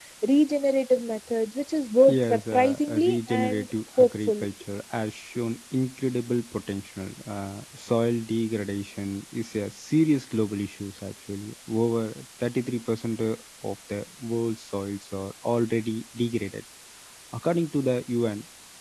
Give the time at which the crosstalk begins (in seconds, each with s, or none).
2.1 s